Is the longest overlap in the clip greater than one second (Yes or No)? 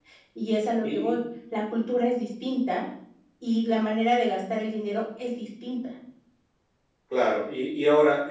No